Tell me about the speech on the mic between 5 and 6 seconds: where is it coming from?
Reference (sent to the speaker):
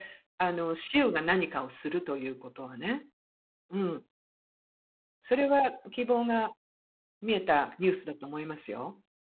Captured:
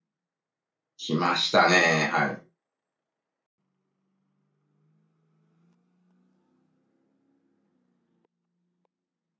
neither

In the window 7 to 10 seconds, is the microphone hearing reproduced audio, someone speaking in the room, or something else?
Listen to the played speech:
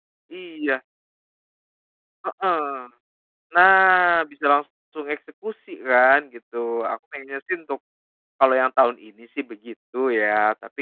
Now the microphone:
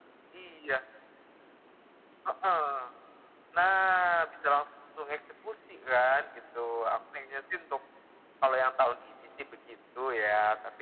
echo only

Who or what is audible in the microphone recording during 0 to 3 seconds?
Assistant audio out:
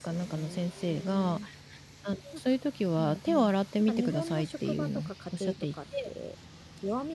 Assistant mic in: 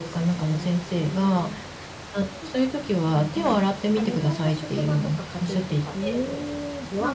echo only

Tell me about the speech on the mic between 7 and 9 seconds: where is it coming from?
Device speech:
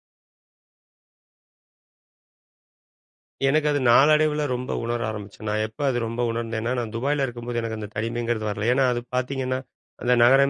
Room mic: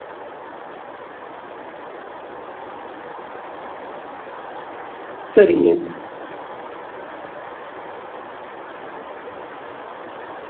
neither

